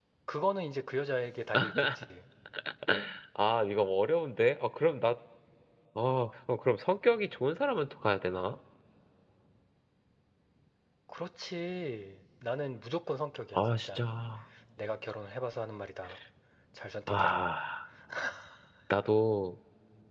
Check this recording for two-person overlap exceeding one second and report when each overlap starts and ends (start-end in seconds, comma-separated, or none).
none